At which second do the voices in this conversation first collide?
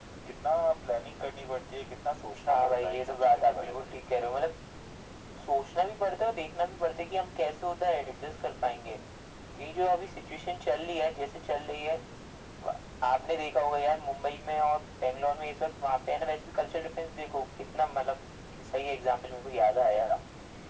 2.5 s

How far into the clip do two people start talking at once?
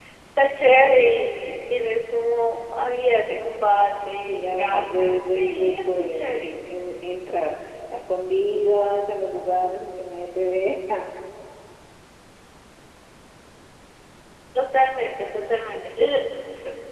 4.5 s

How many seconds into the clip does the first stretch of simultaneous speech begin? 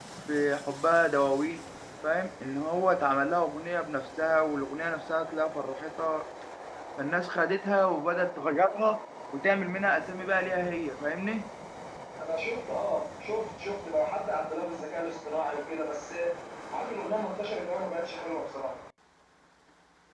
none

